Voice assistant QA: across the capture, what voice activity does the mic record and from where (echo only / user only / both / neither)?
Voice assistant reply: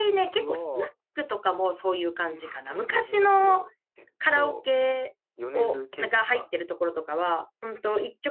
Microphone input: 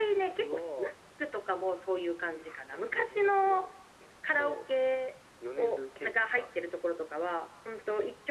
echo only